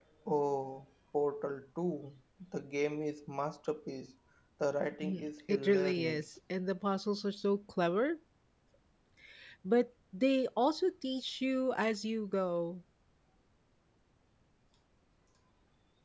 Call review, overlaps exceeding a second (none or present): present